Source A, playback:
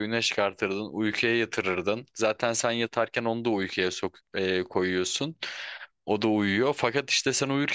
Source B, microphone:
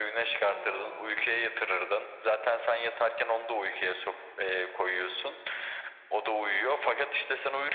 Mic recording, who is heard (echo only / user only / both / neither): both